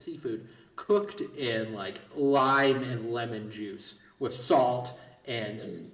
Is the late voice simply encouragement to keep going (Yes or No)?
Yes